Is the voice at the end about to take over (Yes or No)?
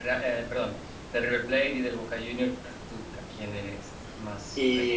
Yes